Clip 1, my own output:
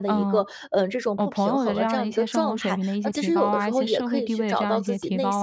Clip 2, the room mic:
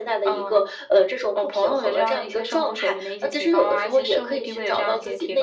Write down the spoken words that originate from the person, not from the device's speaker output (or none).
none